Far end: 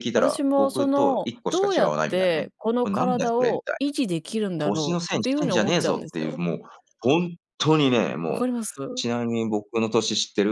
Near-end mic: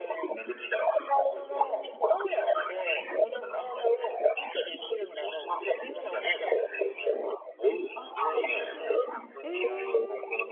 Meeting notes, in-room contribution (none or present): present